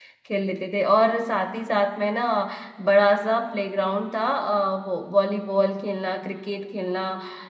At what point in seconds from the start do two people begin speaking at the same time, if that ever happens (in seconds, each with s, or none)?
none